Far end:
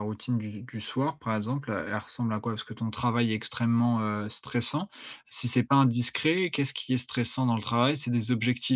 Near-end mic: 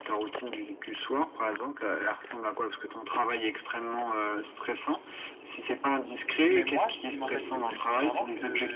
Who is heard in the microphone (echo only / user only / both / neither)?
both